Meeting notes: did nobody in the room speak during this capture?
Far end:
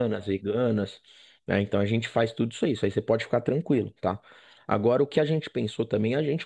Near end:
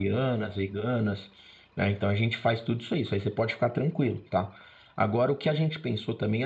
Yes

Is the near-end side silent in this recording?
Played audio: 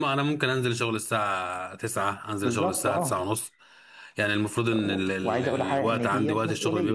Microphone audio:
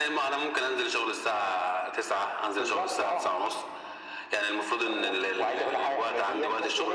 Yes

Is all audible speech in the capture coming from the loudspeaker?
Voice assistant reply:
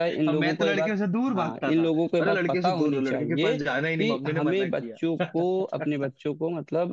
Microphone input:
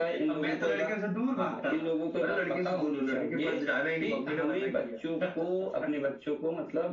Yes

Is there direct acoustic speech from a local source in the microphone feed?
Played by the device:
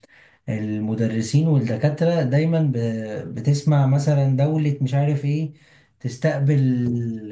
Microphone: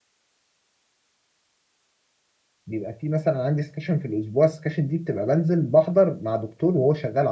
Yes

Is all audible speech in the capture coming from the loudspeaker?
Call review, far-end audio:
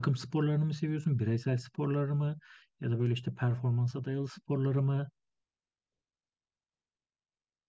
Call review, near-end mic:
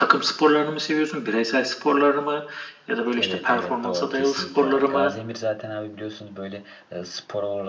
No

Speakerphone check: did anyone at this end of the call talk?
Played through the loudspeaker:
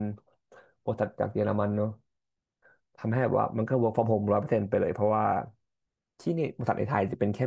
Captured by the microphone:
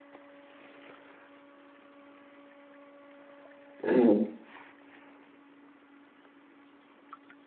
Yes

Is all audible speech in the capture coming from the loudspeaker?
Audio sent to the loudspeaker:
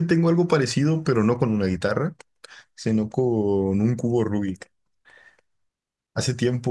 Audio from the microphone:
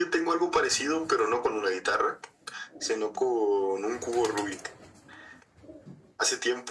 Yes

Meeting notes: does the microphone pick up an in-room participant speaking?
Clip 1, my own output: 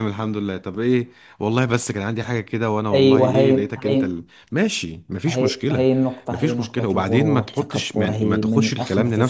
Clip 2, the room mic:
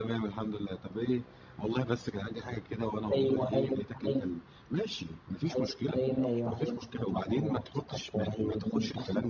Yes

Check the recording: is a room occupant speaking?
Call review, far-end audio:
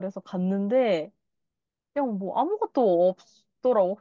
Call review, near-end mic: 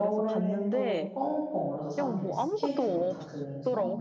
Yes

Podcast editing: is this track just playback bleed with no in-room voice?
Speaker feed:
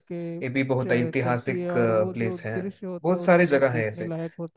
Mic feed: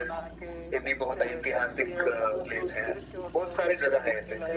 Yes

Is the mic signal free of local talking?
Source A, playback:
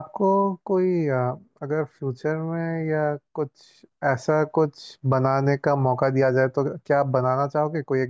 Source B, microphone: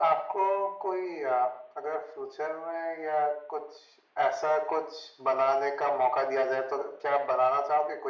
Yes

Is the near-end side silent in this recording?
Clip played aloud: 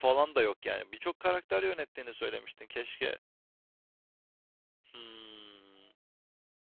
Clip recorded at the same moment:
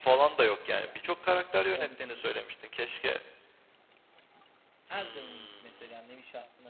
No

